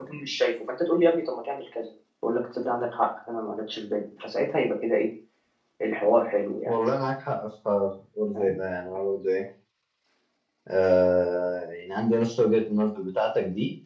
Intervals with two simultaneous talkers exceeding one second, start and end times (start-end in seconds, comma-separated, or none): none